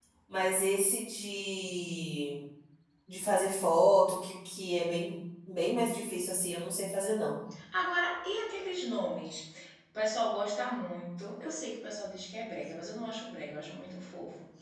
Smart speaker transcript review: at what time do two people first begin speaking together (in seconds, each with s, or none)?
none